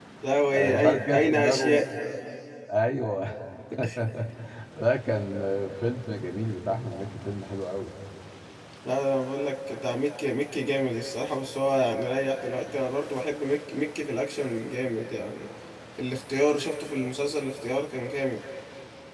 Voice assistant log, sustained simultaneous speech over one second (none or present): present